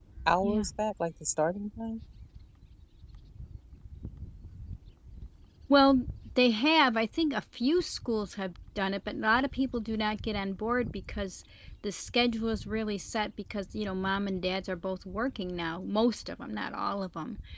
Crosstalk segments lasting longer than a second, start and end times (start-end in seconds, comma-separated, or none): none